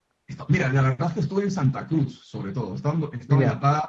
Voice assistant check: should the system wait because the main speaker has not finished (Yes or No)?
Yes